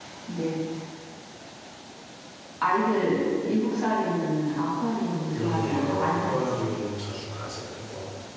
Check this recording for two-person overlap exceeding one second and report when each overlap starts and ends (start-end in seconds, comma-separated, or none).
5.4-6.6